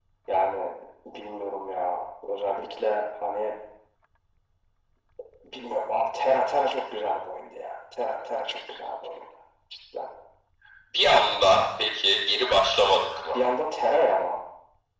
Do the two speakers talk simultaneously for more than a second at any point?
No

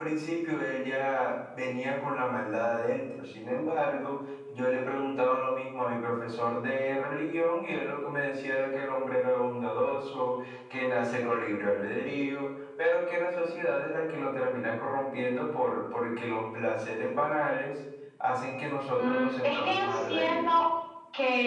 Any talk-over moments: Yes, from 19.0 s

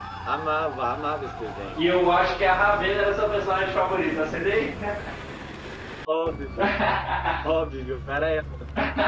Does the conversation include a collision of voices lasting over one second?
No

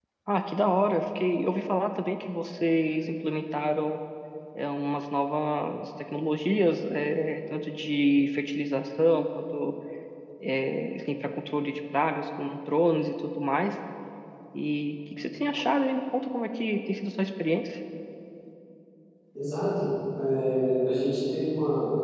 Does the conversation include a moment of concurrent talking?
No

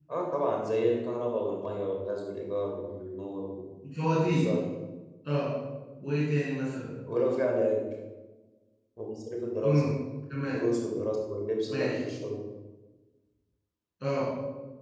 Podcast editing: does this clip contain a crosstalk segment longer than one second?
No

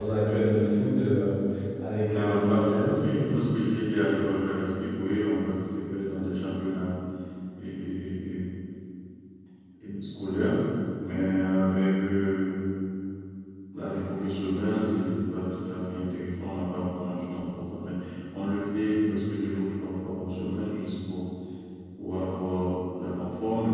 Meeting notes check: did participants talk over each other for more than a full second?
Yes, from 2.1 s

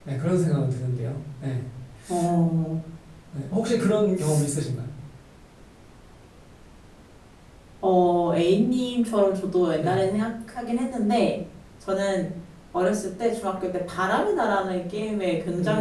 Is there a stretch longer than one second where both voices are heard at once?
No

